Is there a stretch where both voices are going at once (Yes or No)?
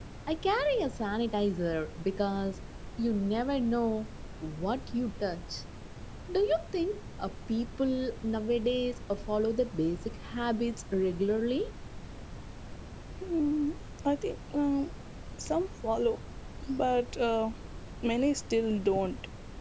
No